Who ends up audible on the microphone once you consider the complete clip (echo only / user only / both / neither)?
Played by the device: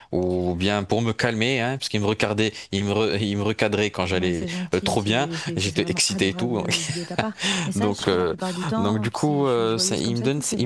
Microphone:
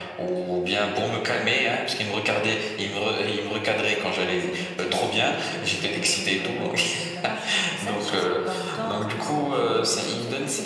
both